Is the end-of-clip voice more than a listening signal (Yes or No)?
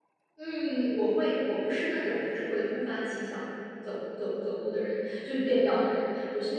No